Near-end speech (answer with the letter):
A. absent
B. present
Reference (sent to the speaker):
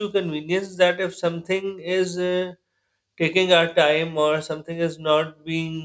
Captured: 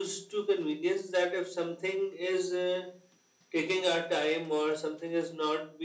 A